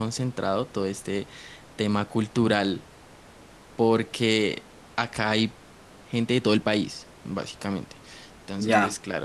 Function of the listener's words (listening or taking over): listening